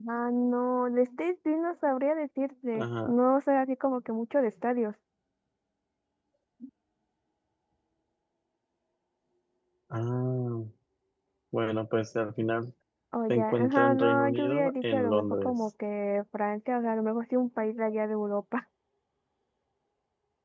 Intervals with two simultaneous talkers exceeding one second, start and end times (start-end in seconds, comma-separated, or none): 13.3-15.5